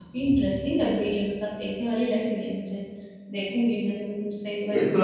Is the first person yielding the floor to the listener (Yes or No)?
Yes